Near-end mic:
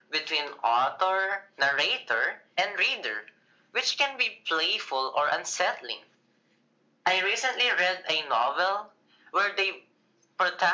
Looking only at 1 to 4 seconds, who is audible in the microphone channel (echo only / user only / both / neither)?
echo only